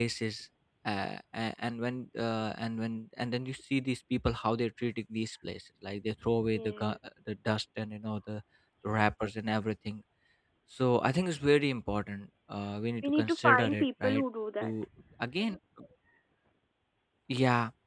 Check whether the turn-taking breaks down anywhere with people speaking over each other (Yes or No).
Yes